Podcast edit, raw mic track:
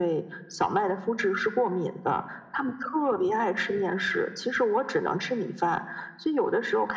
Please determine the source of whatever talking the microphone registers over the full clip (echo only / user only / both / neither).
echo only